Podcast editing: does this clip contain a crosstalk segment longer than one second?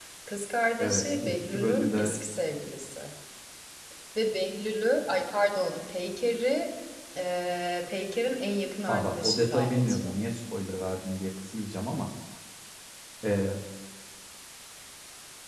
Yes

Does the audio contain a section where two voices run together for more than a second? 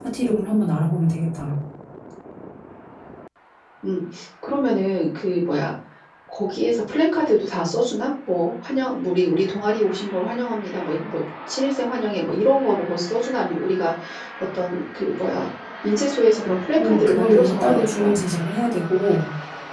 Yes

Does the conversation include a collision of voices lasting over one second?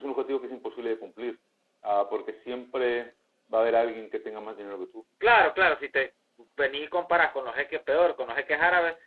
No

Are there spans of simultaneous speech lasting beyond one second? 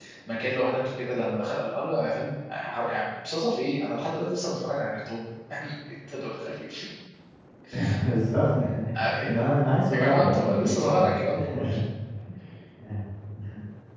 Yes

